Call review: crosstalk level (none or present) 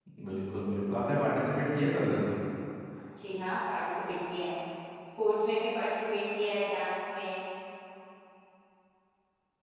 none